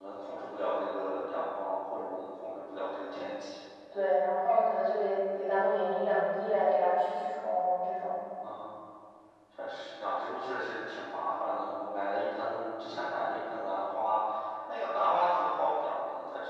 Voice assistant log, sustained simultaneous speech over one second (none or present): none